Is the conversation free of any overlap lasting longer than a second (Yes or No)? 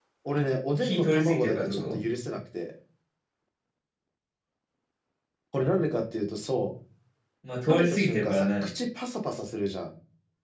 No